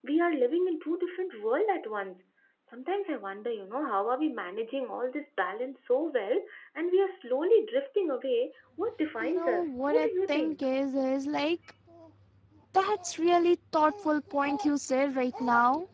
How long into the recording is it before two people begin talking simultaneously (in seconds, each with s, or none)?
9.2 s